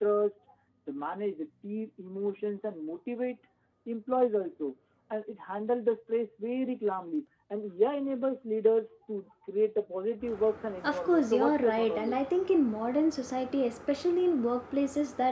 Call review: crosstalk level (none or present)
present